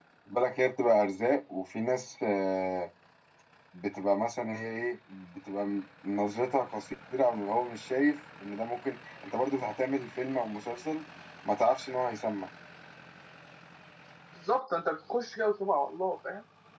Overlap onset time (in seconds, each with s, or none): none